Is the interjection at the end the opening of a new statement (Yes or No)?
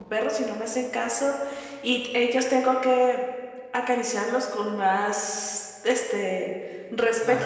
No